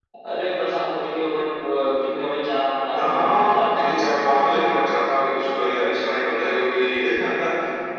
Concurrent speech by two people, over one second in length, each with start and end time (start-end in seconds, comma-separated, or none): 2.9-4.6